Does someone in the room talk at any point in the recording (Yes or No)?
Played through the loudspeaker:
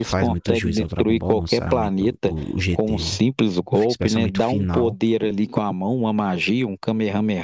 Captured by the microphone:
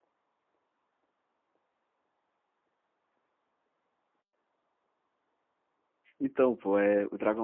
Yes